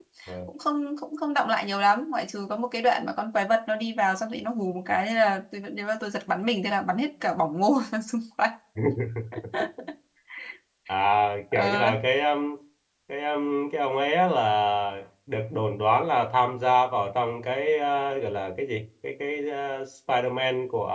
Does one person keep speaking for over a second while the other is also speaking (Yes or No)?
No